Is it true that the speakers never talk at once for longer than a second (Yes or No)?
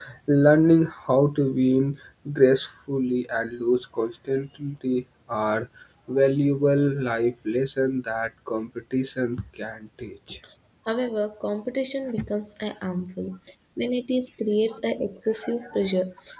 Yes